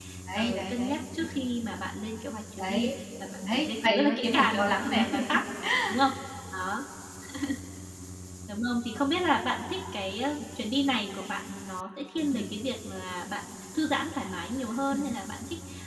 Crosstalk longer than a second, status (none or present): present